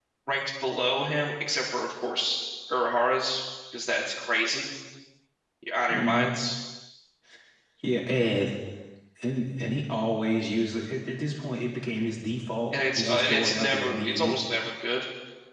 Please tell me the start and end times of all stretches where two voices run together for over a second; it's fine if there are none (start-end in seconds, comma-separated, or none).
12.7-14.4